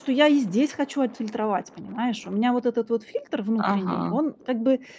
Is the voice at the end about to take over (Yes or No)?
No